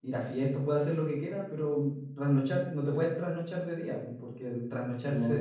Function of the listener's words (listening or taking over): listening